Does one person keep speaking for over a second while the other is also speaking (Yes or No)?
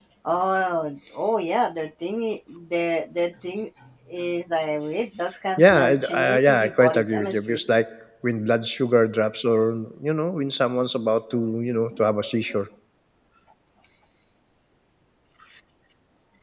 Yes